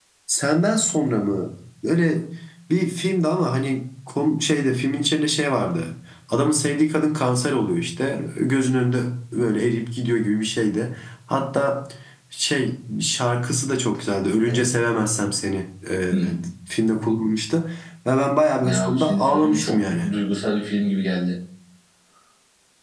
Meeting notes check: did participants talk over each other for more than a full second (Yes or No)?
Yes